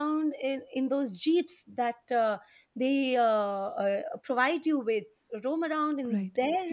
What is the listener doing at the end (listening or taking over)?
taking over